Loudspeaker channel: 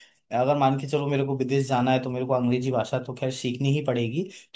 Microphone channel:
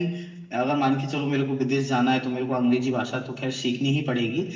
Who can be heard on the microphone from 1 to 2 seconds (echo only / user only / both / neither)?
echo only